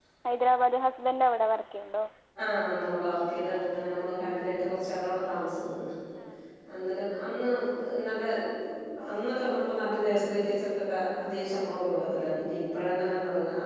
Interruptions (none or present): none